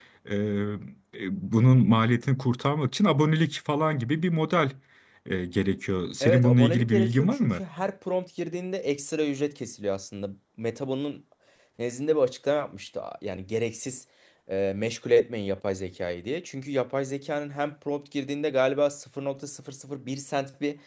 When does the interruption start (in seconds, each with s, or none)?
6.2 s